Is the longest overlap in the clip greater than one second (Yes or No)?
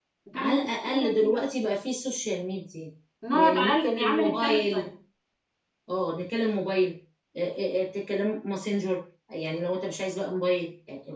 Yes